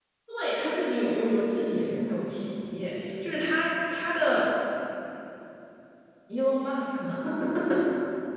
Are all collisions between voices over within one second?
Yes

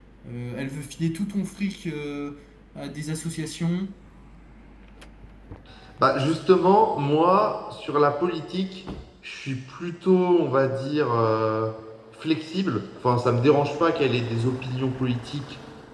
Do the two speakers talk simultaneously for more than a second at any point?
No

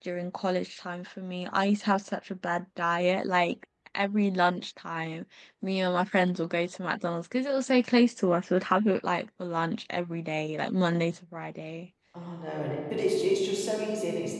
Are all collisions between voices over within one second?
Yes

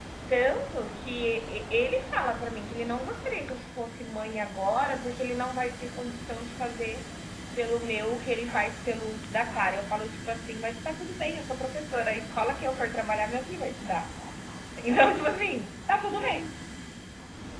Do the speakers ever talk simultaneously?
No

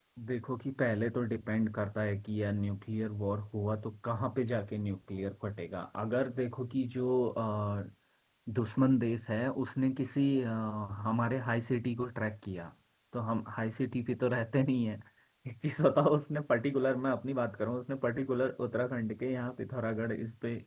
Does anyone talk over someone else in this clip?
No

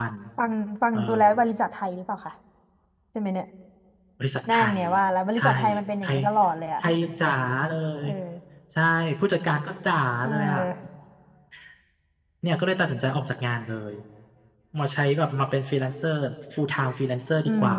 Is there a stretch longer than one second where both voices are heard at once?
No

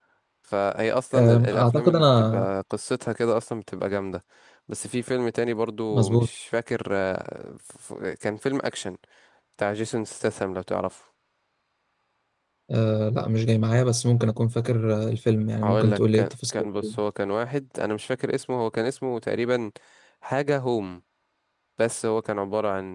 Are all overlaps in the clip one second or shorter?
No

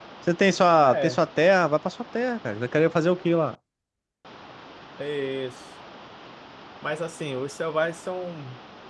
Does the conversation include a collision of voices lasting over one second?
No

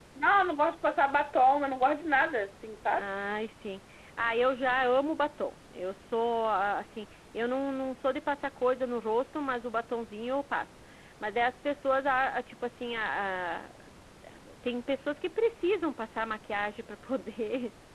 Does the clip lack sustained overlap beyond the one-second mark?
Yes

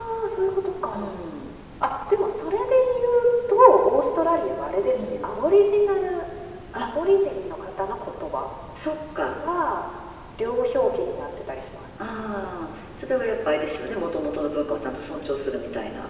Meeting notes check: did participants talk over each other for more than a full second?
No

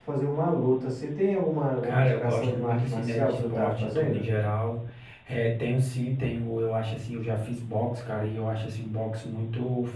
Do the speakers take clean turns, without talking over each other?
No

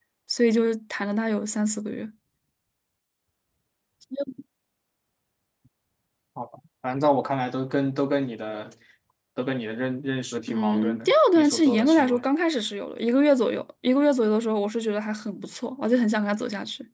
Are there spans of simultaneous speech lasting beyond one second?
Yes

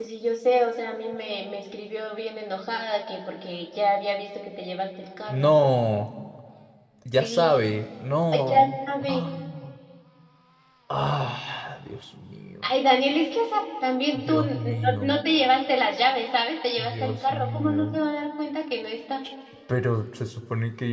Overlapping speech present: Yes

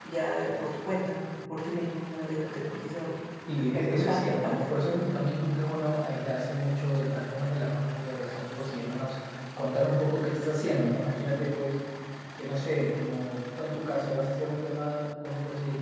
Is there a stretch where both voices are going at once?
Yes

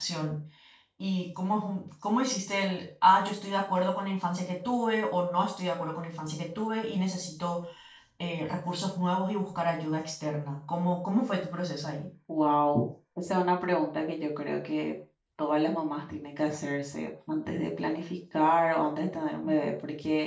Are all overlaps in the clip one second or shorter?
Yes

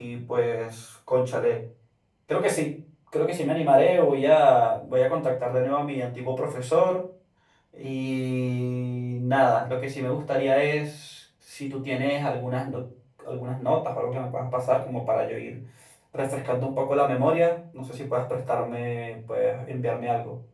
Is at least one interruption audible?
No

